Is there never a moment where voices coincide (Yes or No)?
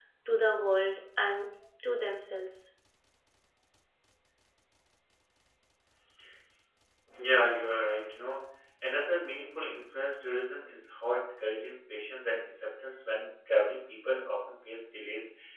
Yes